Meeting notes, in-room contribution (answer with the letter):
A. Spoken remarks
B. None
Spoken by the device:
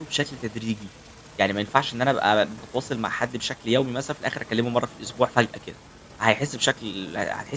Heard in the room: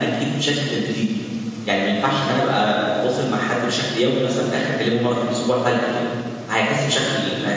B